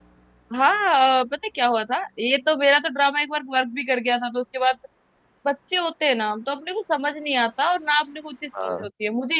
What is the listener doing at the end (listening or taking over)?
listening